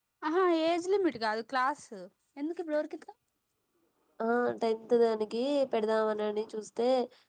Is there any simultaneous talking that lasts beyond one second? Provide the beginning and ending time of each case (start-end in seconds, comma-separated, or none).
none